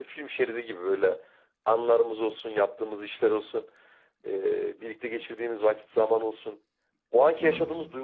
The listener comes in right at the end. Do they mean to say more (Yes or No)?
No